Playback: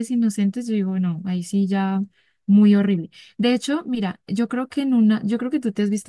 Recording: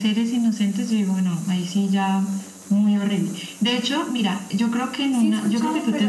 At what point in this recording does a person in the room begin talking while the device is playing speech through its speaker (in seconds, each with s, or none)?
5.1 s